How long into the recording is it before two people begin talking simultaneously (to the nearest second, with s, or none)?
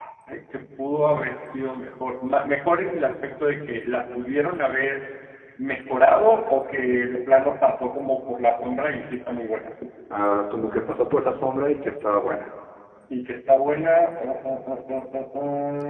none